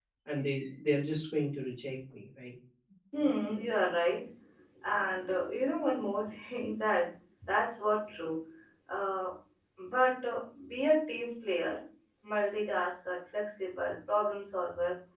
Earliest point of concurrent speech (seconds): none

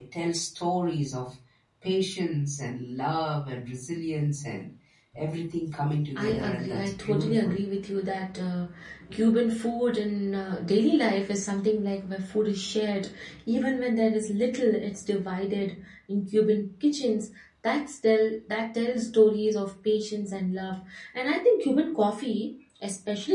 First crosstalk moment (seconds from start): 6.2 s

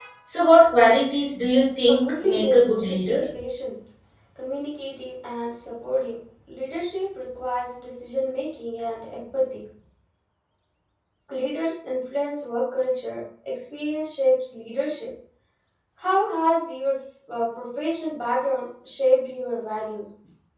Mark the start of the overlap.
1.9 s

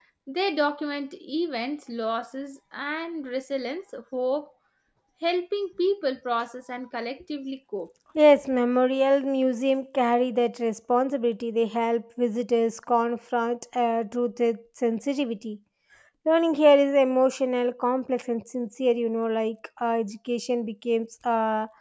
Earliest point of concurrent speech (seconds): none

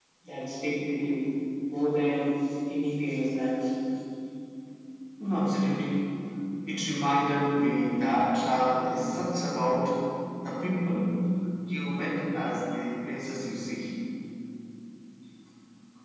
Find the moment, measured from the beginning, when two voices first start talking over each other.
none

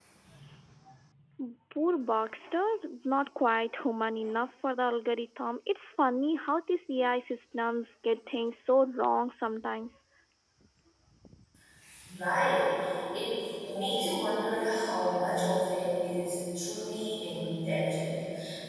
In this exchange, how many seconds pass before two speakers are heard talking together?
none

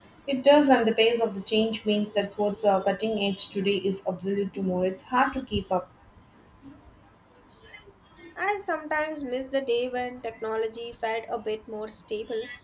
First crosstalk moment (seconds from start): none

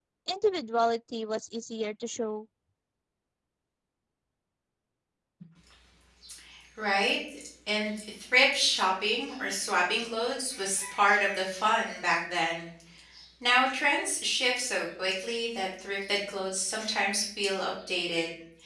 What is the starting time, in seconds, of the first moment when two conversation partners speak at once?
none

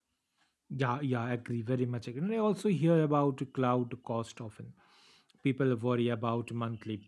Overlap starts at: none

